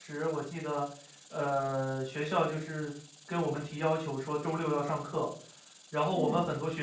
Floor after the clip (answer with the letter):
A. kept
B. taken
A